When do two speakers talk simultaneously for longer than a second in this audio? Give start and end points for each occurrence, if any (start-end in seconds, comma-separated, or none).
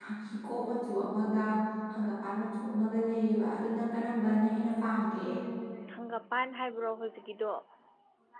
none